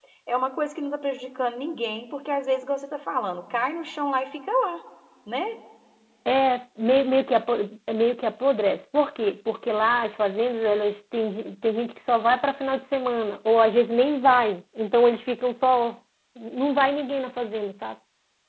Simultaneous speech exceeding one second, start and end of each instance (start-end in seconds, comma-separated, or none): none